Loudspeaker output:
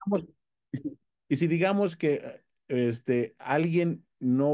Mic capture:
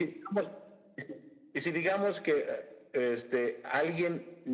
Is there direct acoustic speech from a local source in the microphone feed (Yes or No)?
No